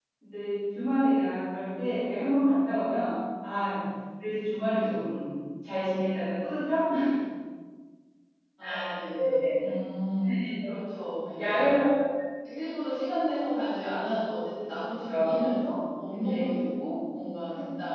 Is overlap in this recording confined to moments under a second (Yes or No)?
Yes